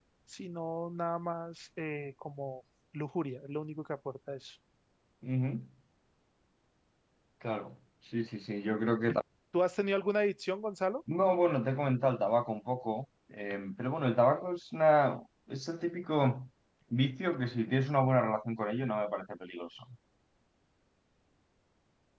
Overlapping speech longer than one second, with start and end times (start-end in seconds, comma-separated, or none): none